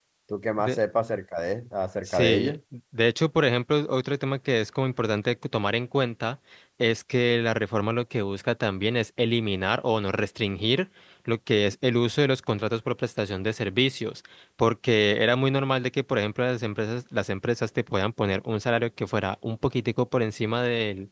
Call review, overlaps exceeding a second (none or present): none